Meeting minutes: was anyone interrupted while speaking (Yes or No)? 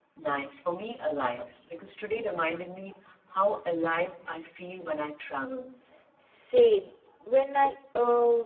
No